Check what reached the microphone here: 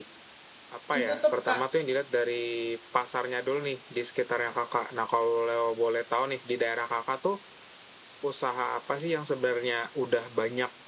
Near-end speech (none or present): present